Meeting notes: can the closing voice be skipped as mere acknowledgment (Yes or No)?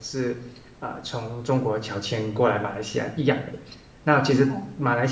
Yes